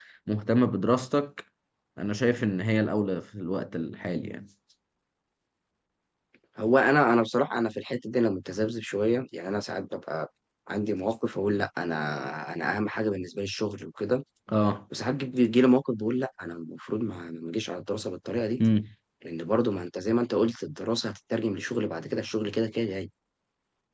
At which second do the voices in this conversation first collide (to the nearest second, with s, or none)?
none